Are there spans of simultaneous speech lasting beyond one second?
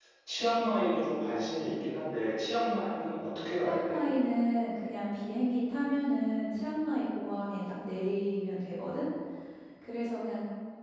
No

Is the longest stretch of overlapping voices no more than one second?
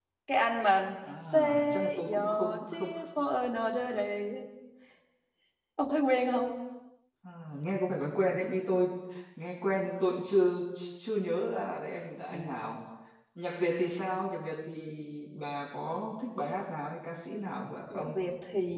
No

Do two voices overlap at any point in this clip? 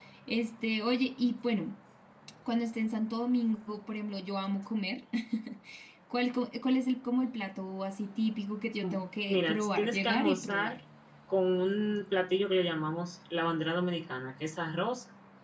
Yes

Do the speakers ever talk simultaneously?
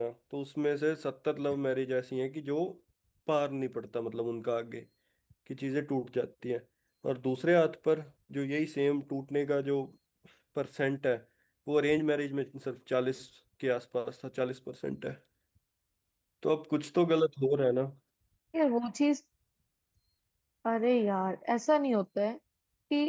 No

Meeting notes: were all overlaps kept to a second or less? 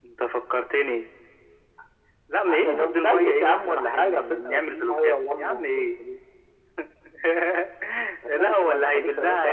No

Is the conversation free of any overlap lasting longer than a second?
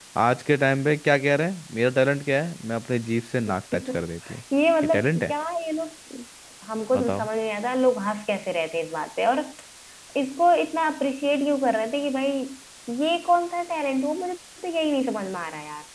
Yes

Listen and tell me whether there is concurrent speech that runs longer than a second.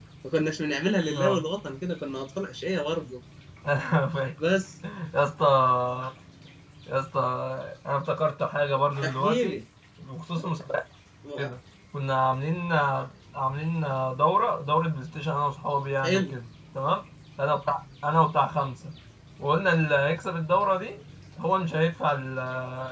No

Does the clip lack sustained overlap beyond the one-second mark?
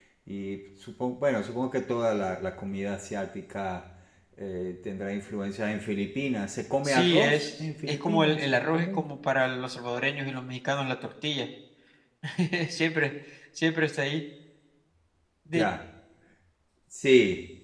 No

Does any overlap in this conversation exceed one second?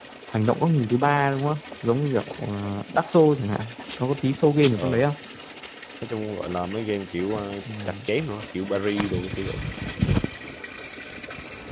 No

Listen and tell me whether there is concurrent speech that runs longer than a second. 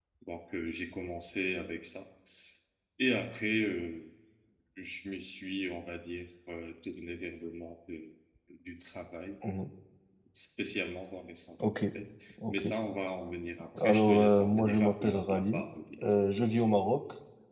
Yes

